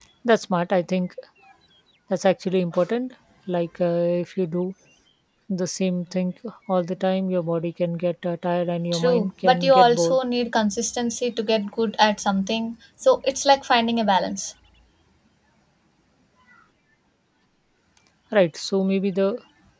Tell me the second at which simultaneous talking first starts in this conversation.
9 s

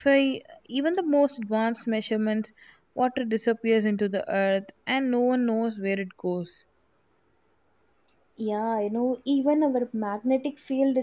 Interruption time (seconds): none

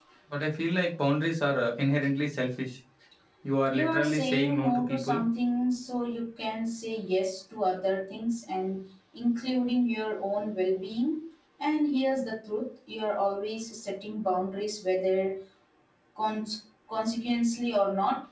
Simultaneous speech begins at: 4 s

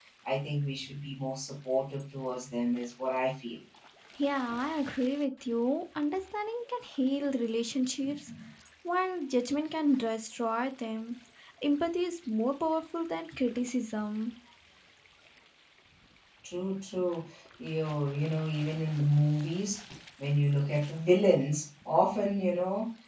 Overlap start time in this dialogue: none

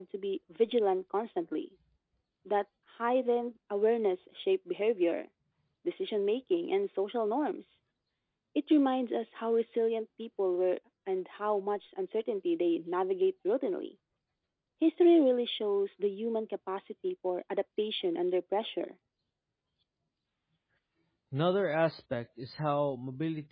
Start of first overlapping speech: none

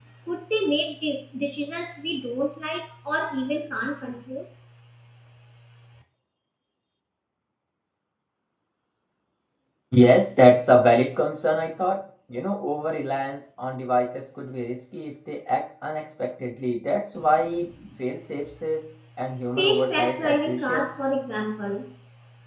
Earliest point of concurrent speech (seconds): 20 s

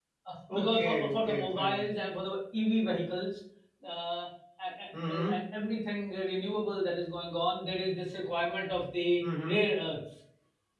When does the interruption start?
1 s

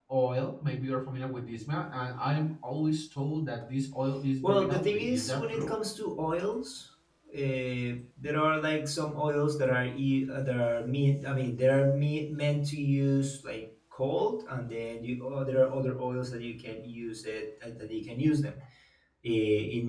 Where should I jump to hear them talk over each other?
4 s

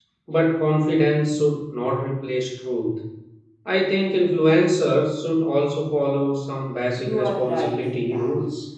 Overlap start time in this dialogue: 7 s

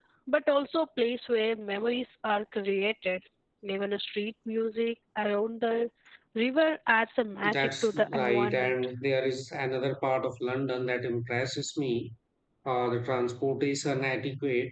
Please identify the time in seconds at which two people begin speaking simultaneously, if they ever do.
7 s

